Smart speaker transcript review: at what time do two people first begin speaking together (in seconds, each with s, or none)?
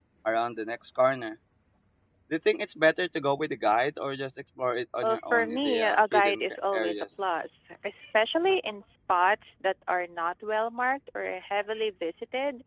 5.0 s